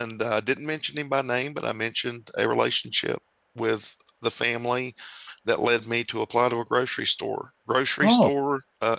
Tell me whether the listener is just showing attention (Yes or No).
Yes